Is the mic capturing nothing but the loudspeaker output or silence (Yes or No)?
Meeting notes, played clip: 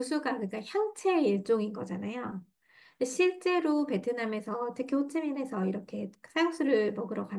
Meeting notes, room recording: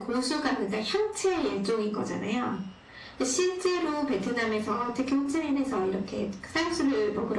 Yes